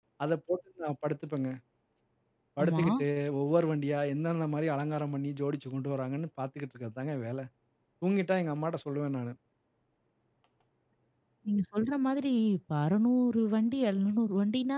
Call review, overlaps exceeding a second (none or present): none